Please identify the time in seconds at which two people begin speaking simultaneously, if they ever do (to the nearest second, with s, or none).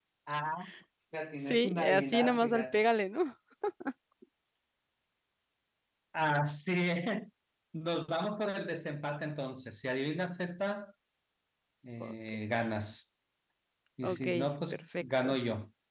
1 s